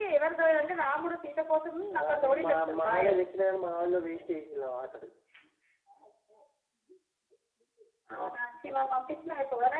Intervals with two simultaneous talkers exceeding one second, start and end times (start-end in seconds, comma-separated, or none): 2.0-3.2